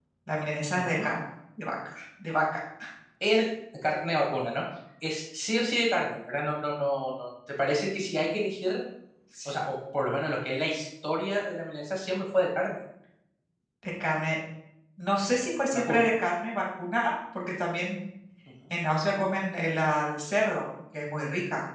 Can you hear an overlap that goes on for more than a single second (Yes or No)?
No